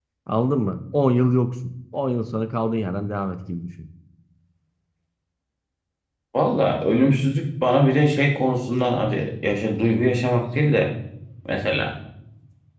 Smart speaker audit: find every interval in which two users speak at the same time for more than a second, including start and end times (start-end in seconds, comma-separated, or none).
none